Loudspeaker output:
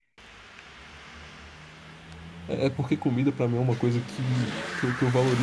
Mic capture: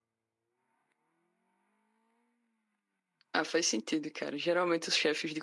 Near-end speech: present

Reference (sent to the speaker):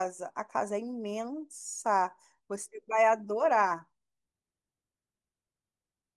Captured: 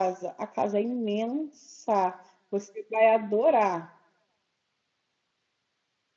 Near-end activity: none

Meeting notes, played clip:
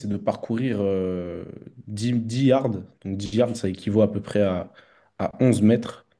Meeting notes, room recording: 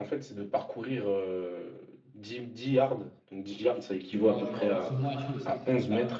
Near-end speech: present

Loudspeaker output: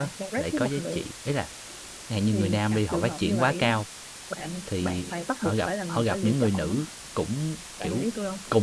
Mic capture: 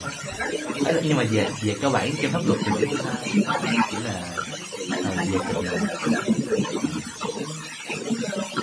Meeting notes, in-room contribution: present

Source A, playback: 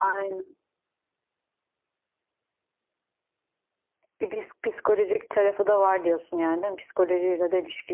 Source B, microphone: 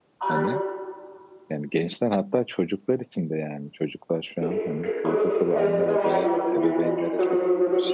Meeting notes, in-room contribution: present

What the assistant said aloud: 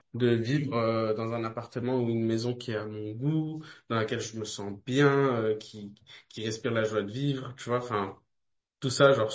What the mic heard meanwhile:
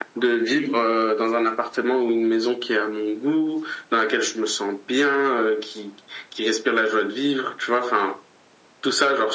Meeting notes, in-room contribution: none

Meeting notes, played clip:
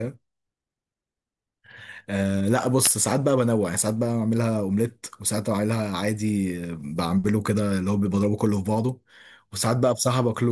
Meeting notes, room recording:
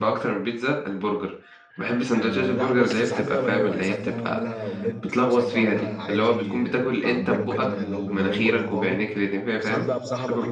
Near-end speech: present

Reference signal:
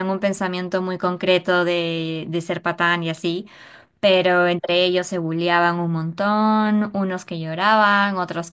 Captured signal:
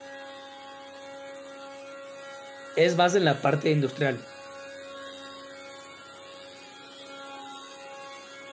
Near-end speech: present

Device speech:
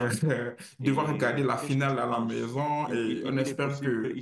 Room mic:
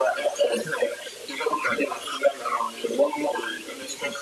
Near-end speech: none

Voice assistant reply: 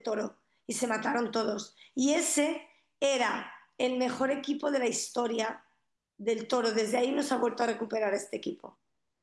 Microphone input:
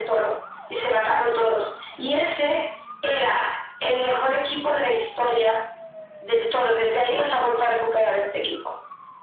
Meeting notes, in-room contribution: none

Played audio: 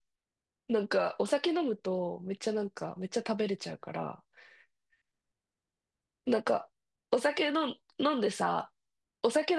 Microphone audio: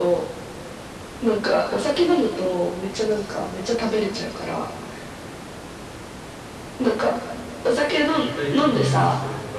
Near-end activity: present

